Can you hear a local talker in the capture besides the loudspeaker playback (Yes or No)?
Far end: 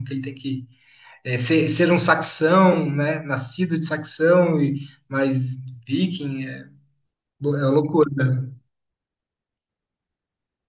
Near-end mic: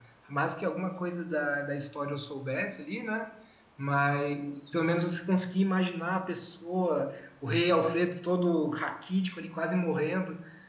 Yes